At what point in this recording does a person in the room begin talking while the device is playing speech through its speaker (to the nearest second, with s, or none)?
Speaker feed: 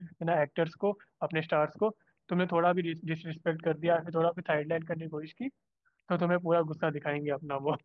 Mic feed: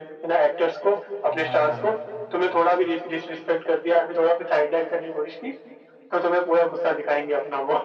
1 s